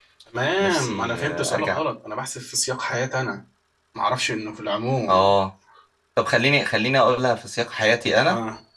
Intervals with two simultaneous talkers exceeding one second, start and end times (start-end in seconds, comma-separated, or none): 0.6-1.8